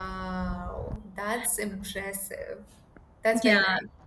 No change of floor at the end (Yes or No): No